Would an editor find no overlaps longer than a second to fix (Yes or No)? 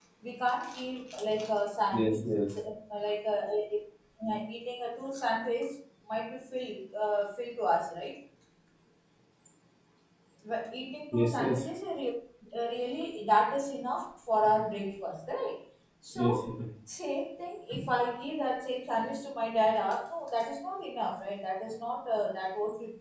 Yes